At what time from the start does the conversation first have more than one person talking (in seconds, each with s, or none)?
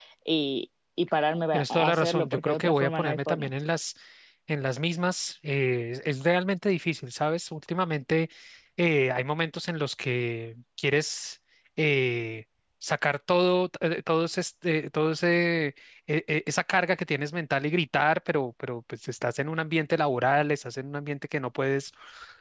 1.5 s